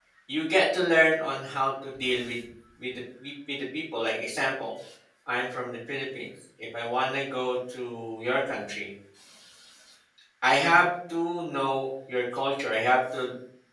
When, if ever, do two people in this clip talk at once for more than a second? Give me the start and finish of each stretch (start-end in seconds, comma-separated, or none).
none